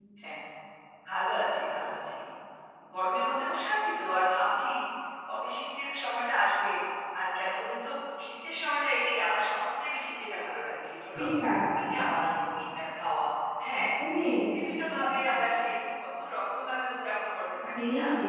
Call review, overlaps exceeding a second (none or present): none